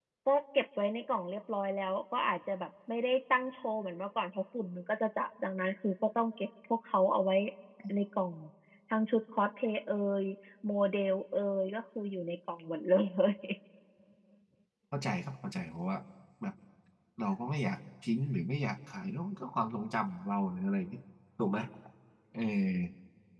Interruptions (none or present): none